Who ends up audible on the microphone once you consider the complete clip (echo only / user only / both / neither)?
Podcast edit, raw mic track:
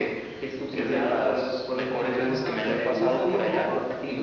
both